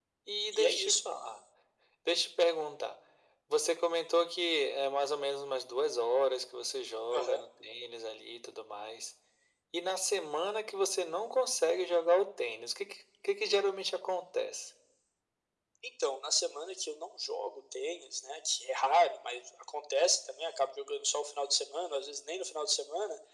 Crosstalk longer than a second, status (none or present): none